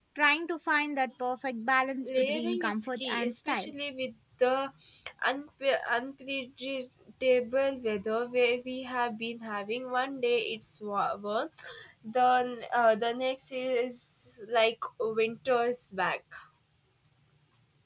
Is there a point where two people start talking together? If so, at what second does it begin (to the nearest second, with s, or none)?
2 s